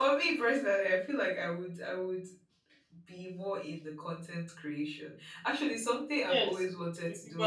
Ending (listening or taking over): taking over